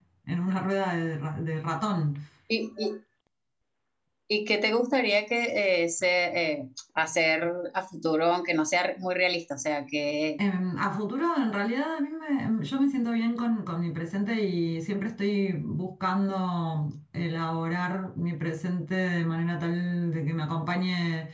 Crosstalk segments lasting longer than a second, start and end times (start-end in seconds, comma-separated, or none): none